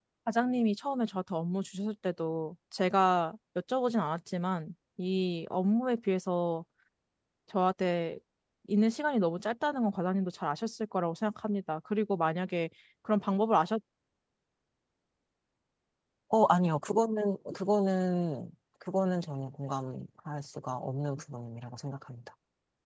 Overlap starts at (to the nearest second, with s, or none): none